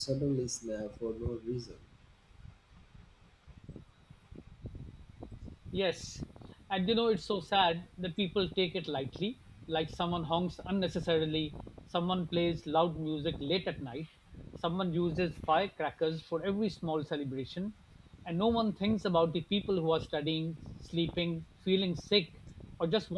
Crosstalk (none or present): none